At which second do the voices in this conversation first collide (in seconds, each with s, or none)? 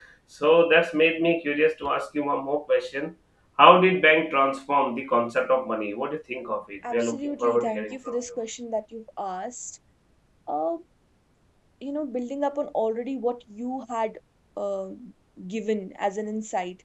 6.8 s